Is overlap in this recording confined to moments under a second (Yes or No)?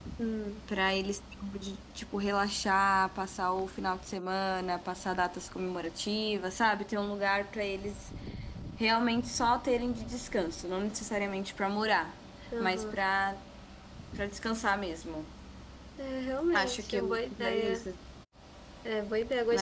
No